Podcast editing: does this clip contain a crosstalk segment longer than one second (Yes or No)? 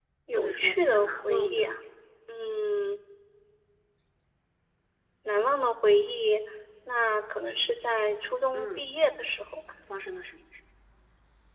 Yes